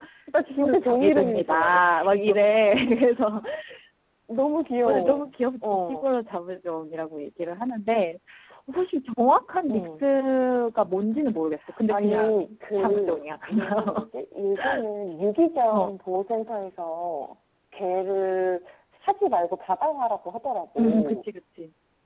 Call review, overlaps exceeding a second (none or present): present